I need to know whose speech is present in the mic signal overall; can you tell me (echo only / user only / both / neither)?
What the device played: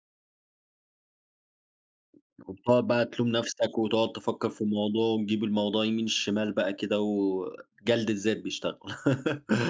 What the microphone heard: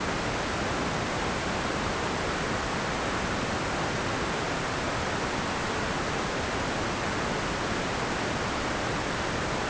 neither